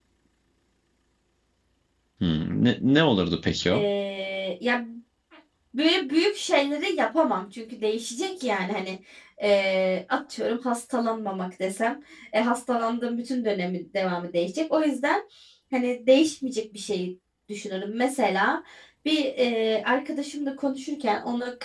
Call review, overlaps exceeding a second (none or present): none